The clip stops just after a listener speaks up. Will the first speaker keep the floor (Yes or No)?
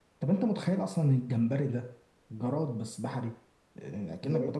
Yes